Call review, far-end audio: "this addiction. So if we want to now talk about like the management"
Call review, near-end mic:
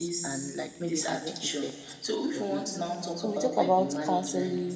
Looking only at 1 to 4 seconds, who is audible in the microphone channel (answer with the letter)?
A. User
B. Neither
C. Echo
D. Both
D